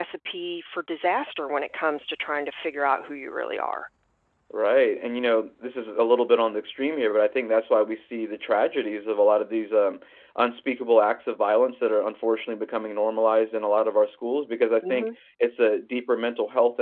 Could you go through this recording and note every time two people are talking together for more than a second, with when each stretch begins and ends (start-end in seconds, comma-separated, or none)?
none